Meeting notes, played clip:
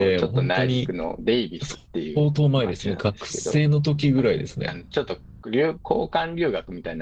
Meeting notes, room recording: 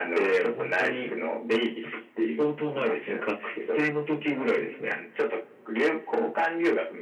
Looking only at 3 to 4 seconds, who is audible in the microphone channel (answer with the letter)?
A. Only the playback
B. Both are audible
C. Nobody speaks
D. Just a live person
A